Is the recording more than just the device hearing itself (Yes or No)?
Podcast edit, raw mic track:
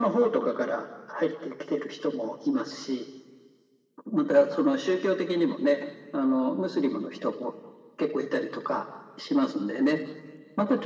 No